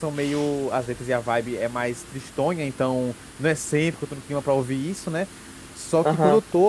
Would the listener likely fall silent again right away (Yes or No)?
Yes